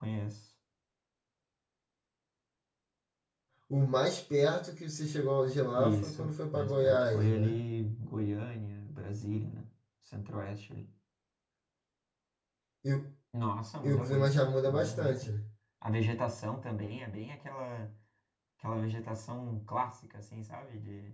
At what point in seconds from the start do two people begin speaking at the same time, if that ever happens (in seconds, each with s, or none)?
5.7 s